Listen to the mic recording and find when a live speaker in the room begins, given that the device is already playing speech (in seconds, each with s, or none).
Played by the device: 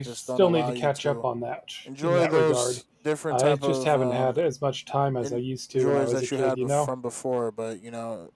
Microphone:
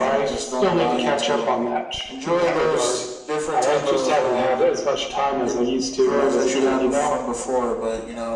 none